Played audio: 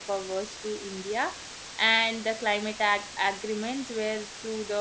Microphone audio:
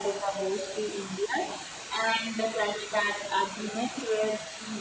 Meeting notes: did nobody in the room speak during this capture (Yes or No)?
Yes